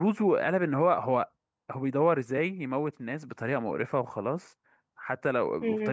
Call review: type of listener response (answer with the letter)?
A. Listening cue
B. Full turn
A